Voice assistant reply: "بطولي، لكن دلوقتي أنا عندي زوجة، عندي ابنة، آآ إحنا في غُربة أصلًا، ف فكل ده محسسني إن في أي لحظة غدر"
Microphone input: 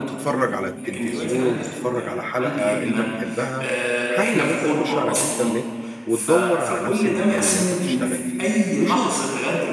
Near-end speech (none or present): present